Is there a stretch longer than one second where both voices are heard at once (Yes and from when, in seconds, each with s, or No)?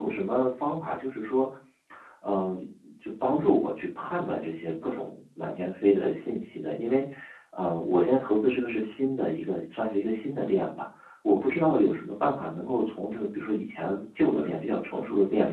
No